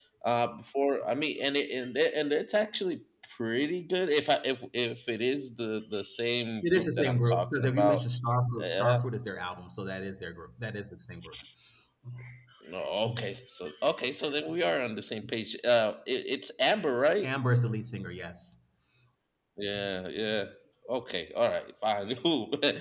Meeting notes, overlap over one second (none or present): present